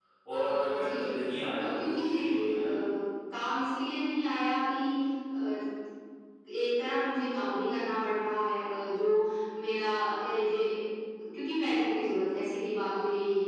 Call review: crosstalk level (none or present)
present